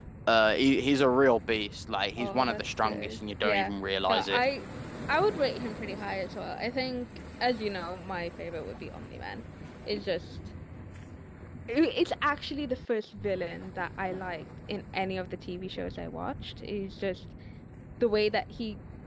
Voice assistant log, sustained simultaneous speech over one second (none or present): present